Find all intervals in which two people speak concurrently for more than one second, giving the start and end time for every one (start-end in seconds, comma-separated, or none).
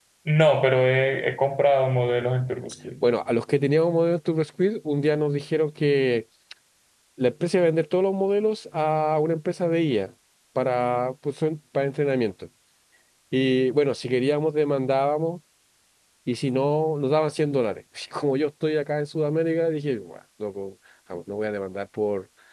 none